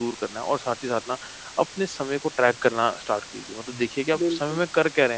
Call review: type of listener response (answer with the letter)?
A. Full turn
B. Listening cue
B